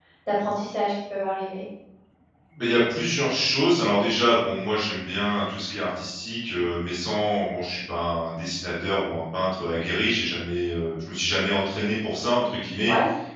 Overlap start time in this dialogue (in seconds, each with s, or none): none